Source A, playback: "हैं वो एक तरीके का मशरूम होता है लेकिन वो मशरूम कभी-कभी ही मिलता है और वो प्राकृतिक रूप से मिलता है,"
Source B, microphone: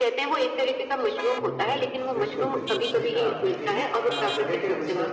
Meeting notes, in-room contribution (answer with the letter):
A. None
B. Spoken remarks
B